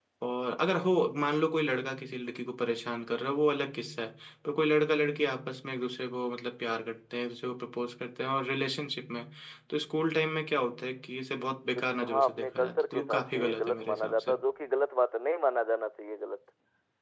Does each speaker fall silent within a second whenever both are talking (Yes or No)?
No